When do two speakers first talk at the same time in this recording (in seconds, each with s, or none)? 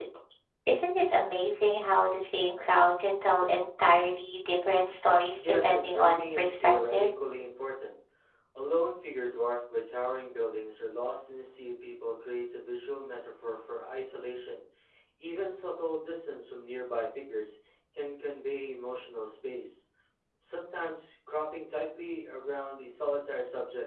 5.4 s